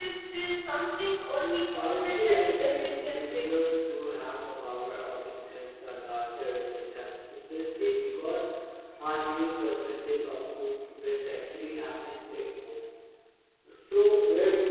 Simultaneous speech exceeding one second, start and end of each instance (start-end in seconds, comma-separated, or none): 1.7-3.7